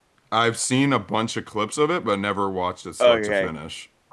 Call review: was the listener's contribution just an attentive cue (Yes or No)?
No